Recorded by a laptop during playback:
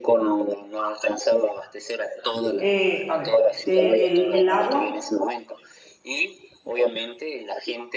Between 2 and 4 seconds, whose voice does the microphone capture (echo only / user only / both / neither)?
both